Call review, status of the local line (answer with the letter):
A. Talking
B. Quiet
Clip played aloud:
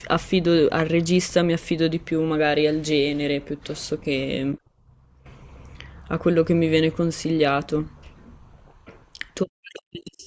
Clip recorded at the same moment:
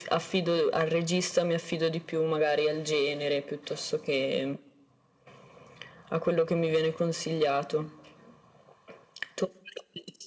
B